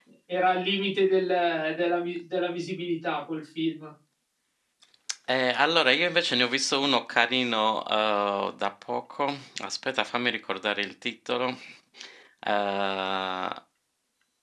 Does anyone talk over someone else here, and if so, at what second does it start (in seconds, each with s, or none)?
none